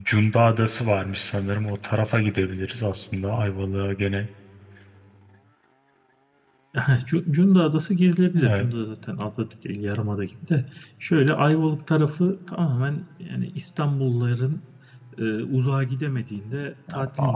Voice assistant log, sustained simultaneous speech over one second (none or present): none